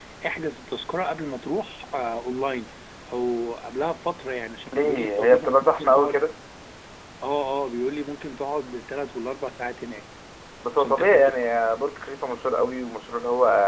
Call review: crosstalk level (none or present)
present